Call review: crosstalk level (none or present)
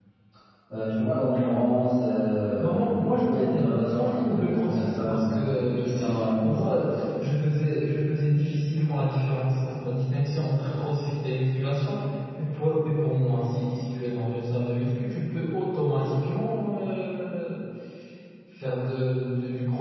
present